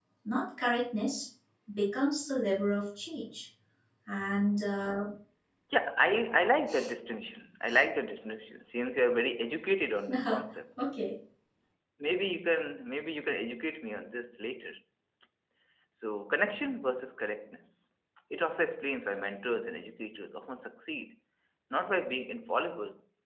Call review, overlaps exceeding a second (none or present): none